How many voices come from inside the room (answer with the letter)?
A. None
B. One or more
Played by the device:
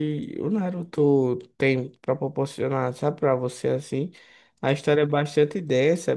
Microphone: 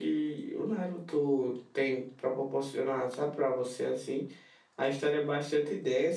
A